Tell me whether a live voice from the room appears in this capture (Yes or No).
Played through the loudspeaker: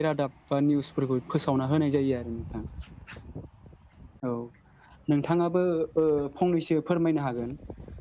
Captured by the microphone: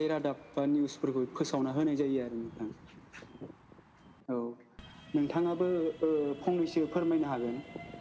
No